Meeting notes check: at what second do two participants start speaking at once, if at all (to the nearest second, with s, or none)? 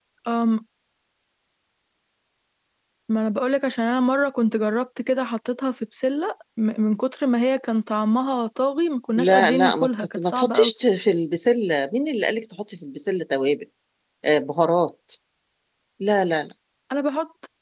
9 s